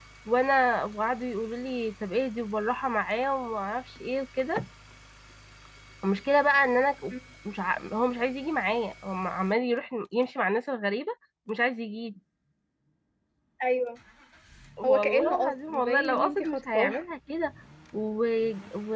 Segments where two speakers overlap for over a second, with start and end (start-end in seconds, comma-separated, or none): 14.8-17.0